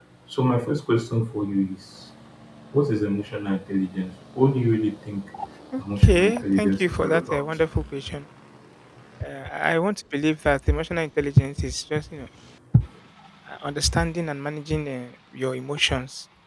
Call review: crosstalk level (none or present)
present